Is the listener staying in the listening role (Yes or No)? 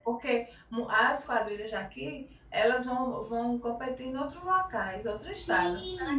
No